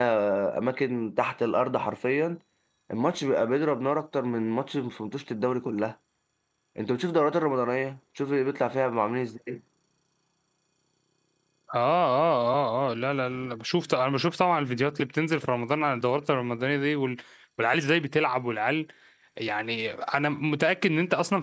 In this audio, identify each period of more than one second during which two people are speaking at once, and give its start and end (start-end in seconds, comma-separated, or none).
none